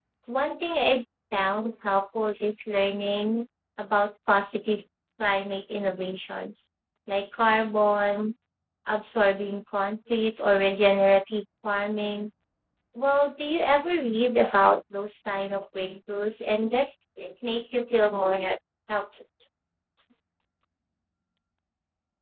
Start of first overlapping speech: none

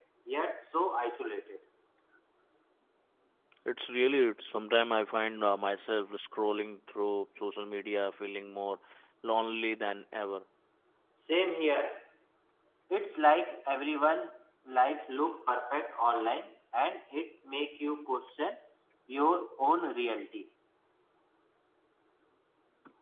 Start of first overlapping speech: none

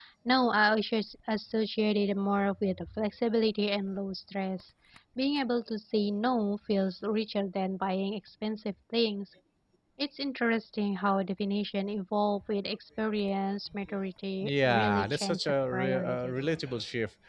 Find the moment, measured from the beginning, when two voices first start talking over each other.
14 s

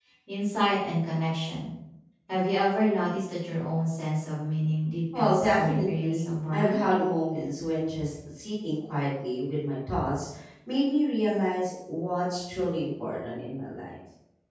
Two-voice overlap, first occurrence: 5 s

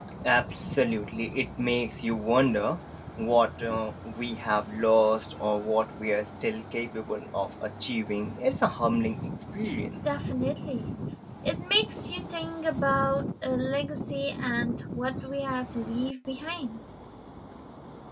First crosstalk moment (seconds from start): none

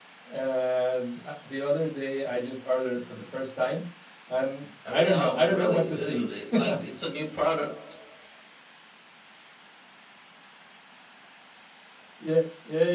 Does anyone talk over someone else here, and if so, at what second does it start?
5 s

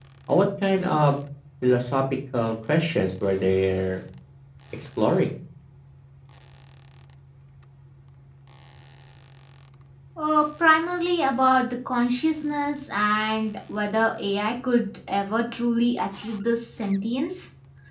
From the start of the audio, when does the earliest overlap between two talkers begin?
none

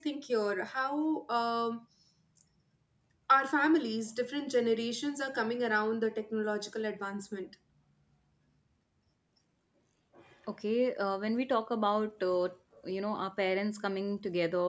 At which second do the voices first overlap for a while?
none

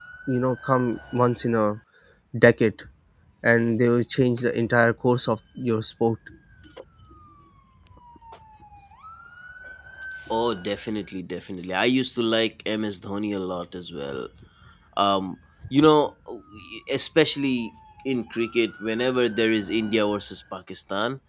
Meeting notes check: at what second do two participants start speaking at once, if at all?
none

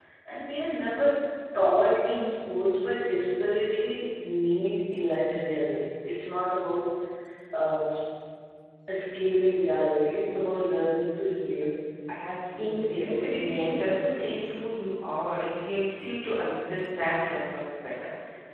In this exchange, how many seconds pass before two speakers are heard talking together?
13 s

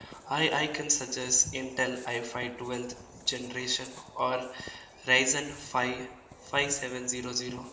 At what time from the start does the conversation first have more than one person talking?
none

